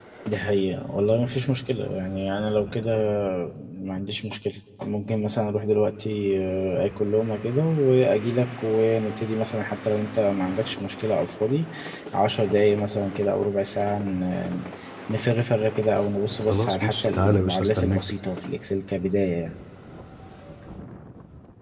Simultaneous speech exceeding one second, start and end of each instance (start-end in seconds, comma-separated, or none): 16.5-18.0